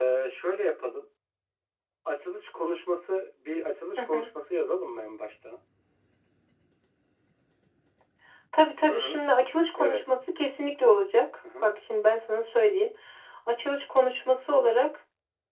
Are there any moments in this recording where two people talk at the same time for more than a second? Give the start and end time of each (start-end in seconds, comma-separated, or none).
none